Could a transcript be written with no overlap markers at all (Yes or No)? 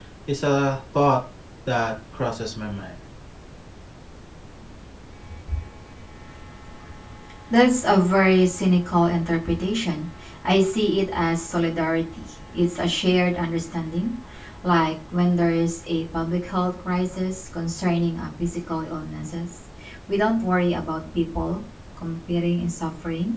Yes